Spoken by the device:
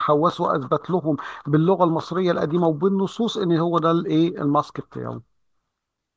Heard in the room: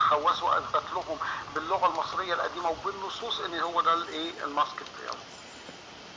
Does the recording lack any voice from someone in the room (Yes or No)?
Yes